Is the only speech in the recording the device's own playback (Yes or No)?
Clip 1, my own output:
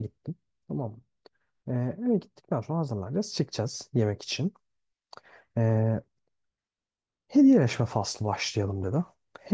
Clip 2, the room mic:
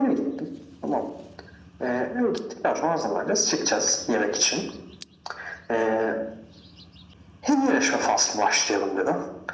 Yes